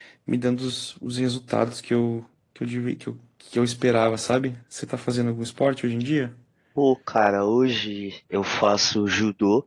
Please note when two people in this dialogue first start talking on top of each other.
none

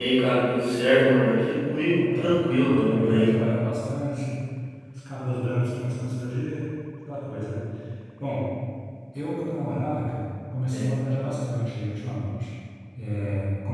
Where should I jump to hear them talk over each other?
1.9 s

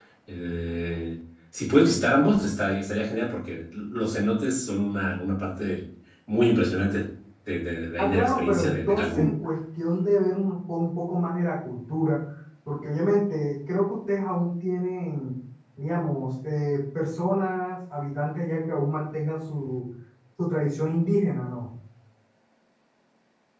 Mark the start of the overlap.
8.0 s

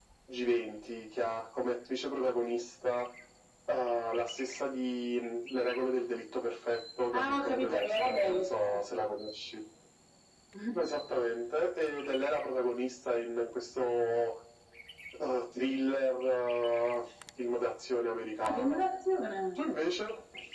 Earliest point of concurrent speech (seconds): 7.1 s

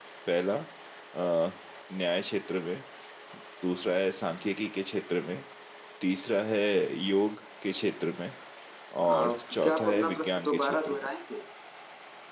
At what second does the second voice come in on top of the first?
9.1 s

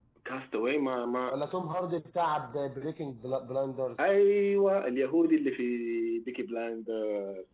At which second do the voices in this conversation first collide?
none

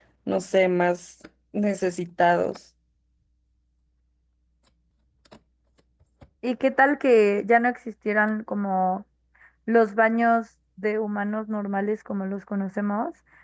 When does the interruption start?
none

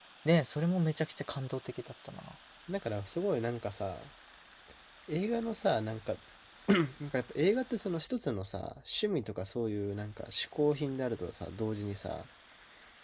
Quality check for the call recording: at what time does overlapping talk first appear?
none

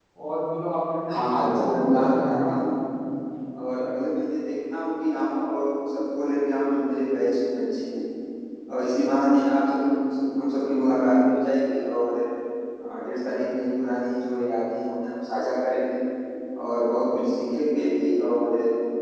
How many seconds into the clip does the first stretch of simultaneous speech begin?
1.2 s

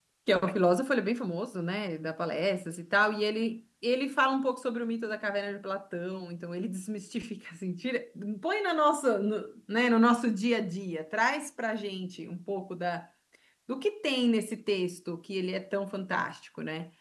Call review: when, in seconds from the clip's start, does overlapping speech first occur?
none

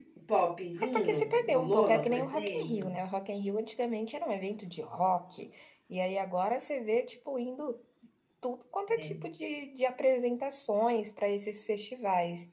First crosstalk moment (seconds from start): 0.8 s

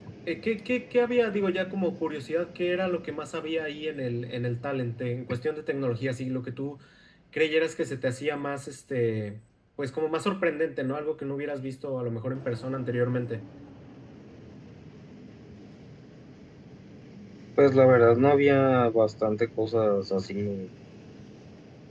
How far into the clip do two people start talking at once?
none

